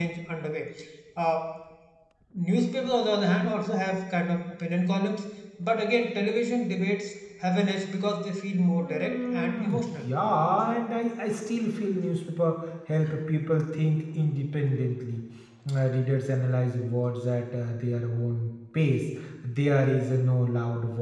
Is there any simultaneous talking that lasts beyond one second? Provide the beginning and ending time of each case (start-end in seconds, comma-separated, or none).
8.8-10.0